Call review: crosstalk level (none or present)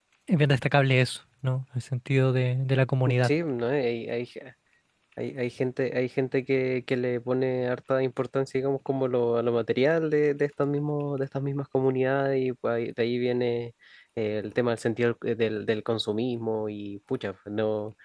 none